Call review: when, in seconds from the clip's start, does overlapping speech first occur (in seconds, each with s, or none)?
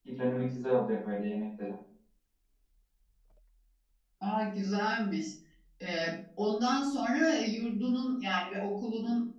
none